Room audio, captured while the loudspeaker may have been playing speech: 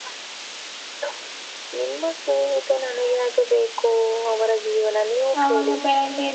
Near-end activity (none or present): present